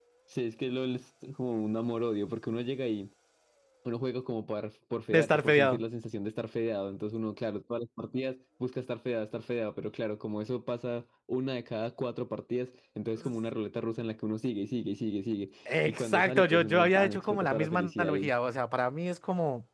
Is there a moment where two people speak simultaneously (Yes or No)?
Yes